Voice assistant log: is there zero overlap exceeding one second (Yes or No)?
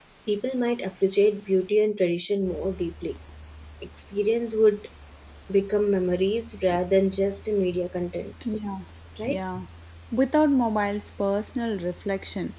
Yes